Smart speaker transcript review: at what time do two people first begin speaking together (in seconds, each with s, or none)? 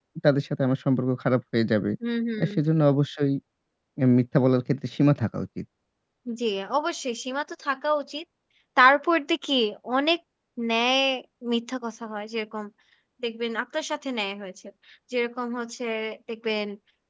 none